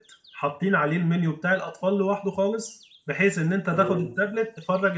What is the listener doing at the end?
listening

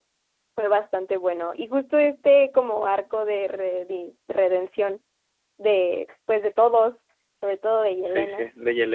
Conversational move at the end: taking over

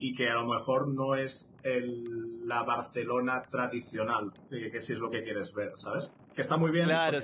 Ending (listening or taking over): taking over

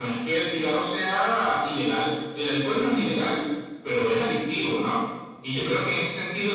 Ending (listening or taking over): listening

